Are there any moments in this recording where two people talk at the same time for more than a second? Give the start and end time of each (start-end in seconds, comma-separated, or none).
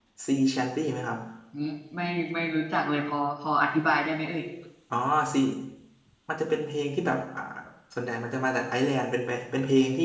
none